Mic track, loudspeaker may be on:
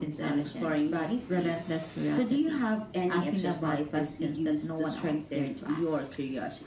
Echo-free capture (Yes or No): No